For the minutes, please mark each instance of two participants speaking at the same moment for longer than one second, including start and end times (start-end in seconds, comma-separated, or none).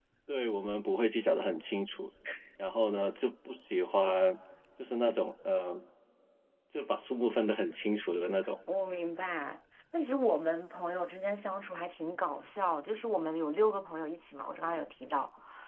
none